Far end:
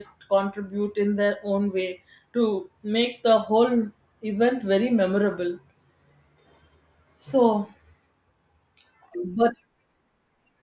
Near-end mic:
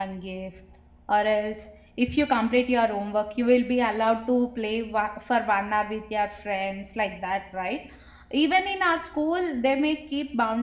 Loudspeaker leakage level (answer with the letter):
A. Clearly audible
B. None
B